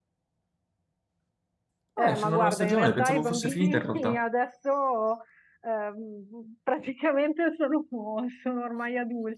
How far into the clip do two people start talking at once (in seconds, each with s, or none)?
2.0 s